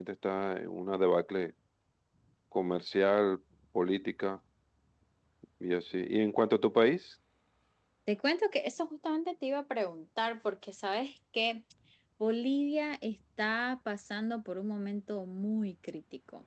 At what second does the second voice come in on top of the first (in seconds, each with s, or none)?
none